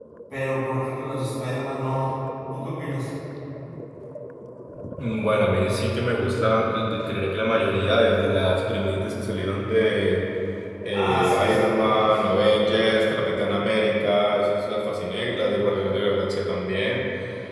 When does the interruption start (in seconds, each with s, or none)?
10.9 s